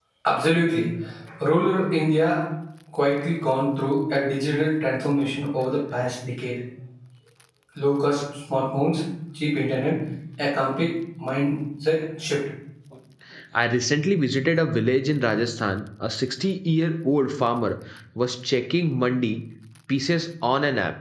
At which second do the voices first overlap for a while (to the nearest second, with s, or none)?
none